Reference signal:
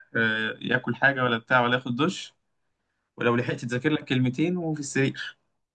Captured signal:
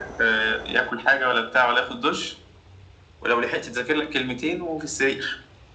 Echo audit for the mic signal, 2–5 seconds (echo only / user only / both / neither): echo only